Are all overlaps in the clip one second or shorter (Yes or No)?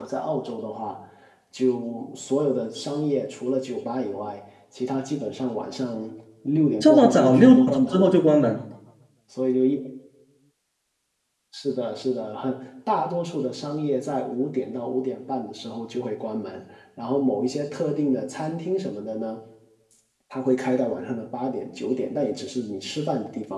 No